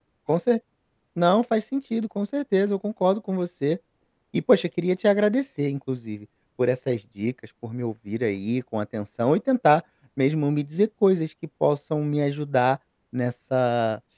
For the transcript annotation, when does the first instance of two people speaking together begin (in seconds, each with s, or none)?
none